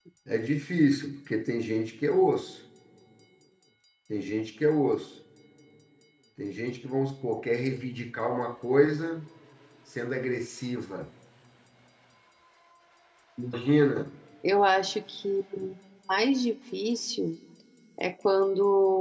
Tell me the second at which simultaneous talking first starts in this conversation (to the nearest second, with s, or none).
none